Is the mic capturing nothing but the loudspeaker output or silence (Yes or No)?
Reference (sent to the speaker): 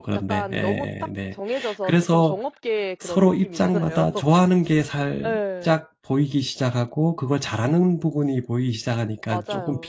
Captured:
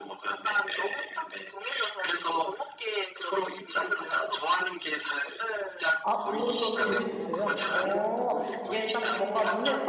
No